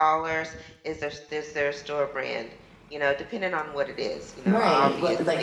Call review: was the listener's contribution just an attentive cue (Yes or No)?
No